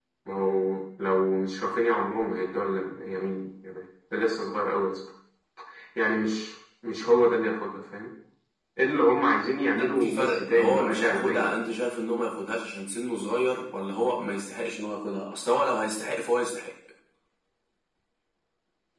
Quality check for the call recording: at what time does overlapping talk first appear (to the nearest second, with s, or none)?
10 s